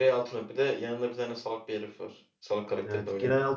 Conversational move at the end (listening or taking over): taking over